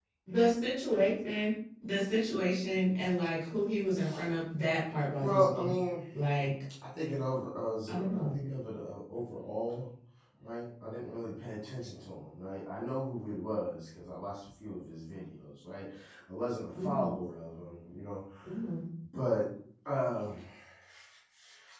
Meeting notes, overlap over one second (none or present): none